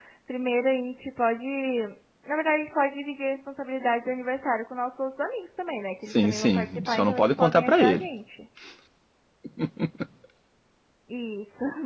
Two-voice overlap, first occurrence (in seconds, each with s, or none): 6.0 s